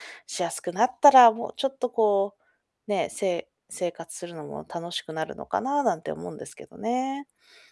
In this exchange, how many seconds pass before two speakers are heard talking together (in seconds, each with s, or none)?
none